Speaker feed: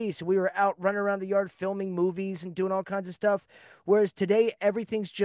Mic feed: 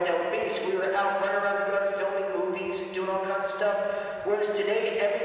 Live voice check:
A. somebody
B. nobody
B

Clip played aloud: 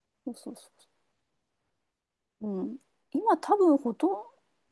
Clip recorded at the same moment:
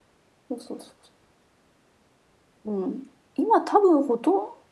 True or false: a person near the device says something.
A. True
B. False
B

